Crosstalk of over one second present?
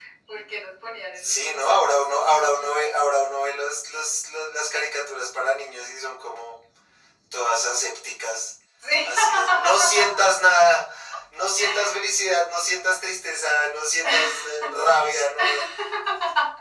Yes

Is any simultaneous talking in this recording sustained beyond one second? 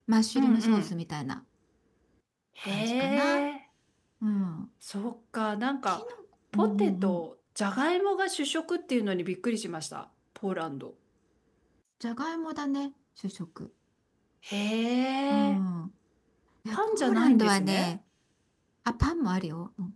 Yes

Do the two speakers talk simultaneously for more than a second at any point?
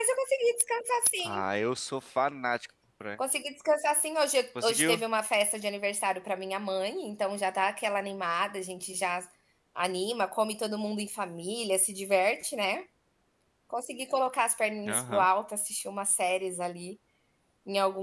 No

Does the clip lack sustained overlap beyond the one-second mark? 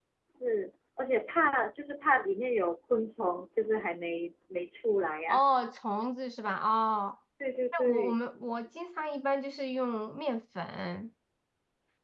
Yes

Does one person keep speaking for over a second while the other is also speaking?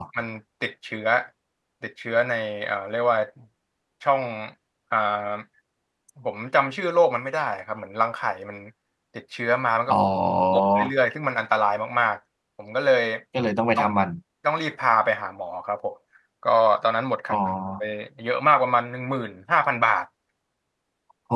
No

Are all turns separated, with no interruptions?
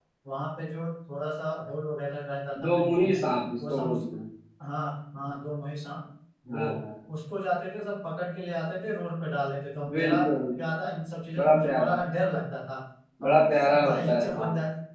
No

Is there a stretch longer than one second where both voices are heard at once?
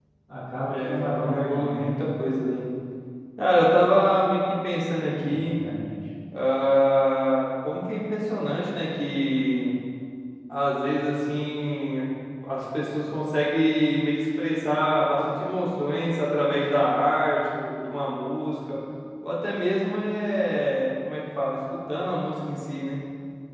Yes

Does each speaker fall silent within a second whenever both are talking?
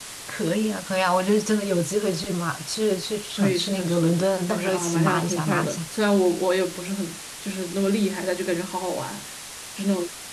No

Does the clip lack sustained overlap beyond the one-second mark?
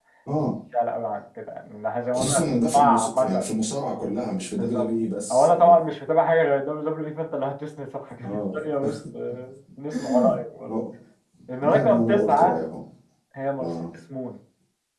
No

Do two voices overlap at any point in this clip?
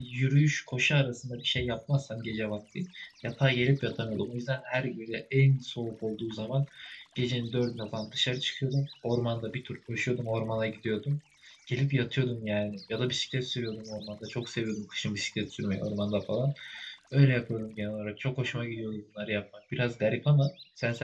No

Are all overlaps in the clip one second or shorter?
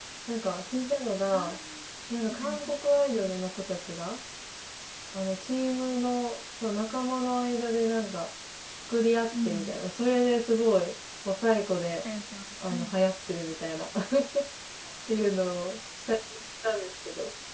Yes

